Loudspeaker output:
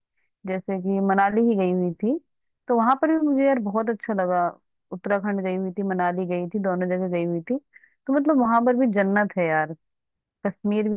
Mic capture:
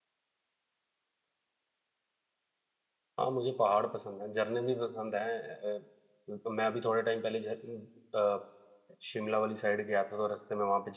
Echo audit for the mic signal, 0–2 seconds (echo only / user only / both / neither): neither